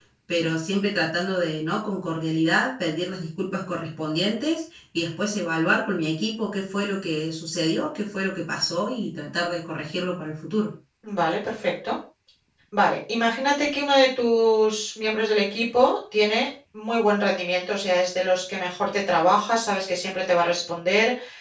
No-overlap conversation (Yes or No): Yes